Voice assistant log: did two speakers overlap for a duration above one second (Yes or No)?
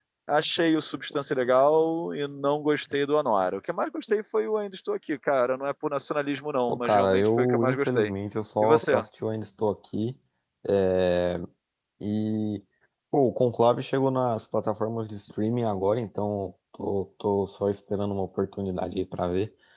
Yes